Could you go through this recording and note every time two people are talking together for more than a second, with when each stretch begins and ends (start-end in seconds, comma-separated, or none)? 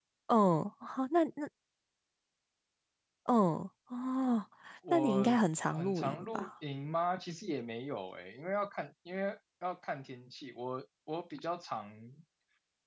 4.9-6.5